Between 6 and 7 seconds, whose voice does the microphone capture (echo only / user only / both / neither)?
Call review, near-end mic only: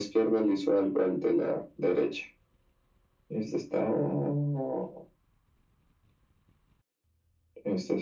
neither